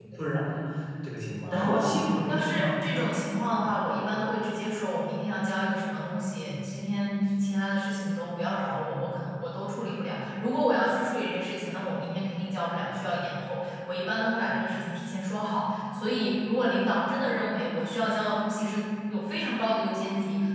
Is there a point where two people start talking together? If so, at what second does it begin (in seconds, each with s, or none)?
1.4 s